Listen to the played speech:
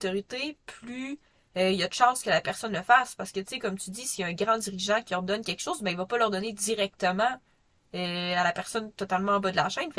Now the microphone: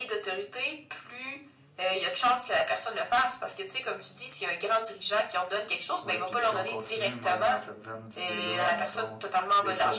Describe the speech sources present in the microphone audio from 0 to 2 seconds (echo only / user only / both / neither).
echo only